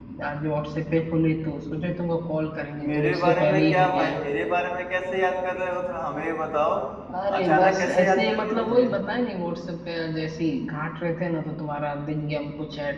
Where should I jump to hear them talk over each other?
2.8 s

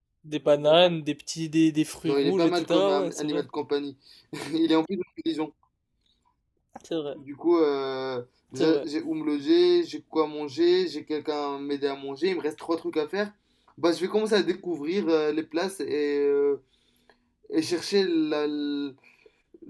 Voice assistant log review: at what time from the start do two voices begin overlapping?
2.0 s

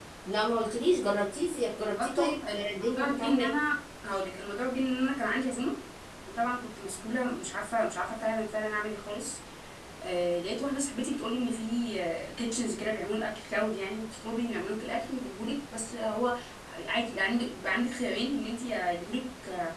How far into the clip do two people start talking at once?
1.9 s

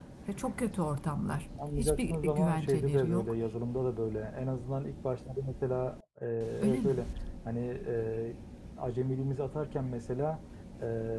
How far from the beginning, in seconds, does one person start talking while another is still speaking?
1.8 s

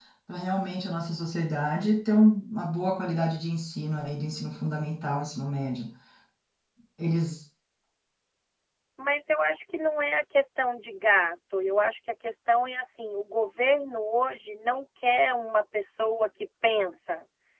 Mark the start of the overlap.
none

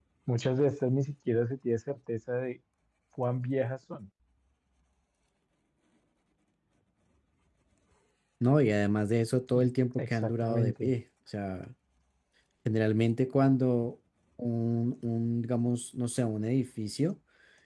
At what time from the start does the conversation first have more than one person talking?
9.5 s

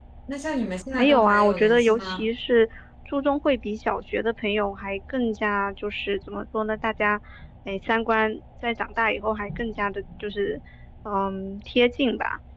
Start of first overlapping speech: 1.0 s

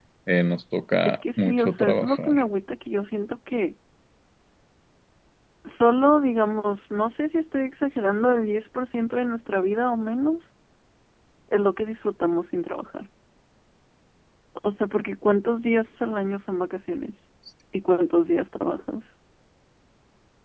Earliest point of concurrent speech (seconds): 1.0 s

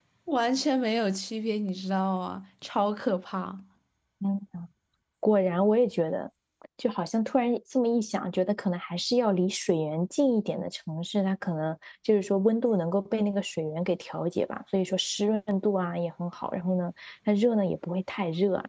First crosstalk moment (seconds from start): none

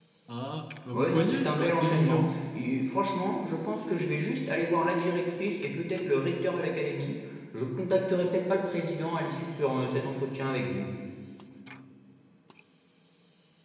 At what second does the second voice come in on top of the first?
0.9 s

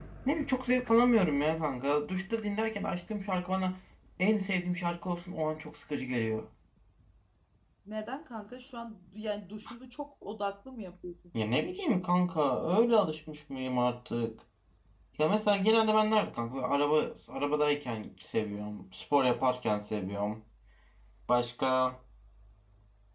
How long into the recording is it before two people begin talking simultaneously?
none

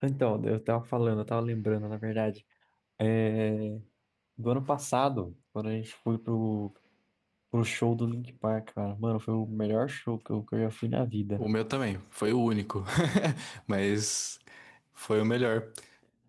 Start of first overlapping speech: none

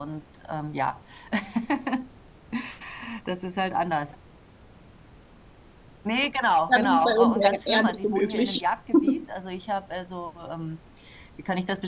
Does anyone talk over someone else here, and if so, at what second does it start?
6.7 s

